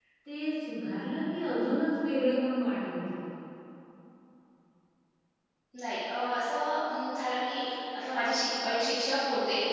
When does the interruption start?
none

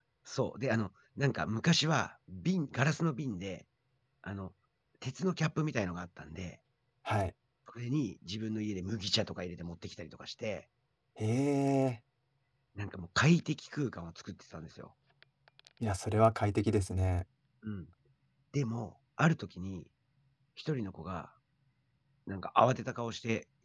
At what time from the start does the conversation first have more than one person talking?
none

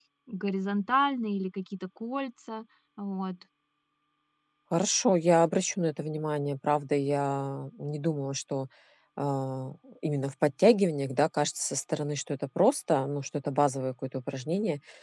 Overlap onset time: none

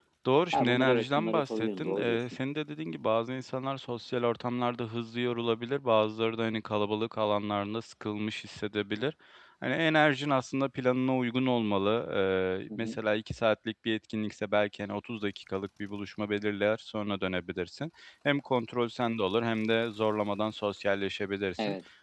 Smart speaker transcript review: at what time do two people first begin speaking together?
0.5 s

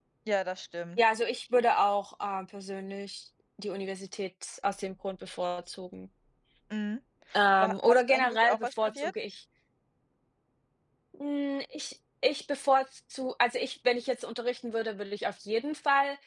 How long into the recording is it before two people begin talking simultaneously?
7.6 s

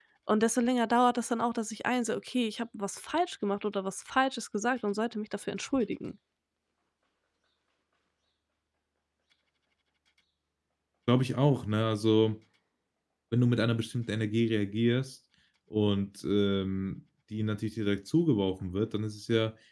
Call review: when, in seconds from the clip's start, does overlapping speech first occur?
none

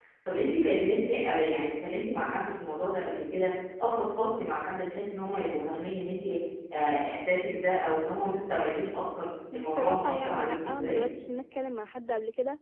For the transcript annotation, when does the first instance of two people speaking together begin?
9.5 s

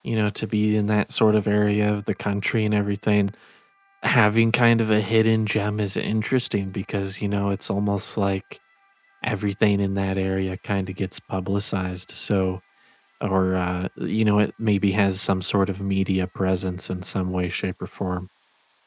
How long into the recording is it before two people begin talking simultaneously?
none

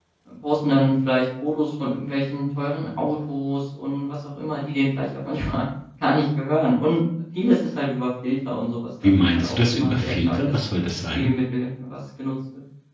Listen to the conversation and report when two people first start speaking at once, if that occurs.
9.0 s

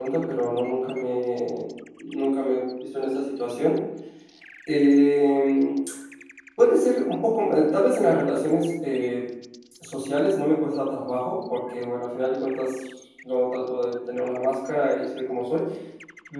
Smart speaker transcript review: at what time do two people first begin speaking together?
none

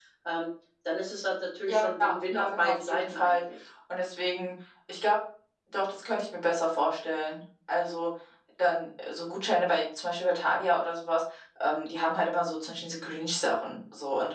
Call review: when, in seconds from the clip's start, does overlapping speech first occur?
1.7 s

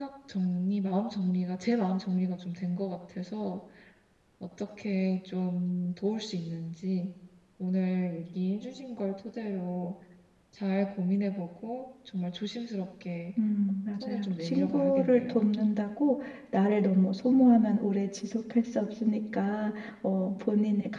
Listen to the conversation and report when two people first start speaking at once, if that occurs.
14.0 s

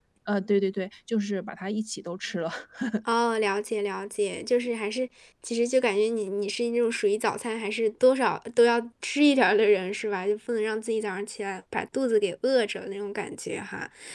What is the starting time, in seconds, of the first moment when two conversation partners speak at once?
none

